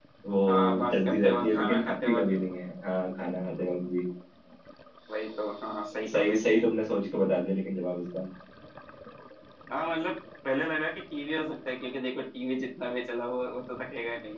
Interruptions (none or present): present